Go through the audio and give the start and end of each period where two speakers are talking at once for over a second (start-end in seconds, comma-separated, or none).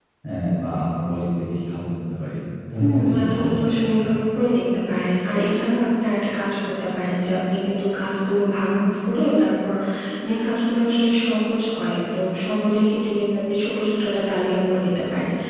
2.8-4.0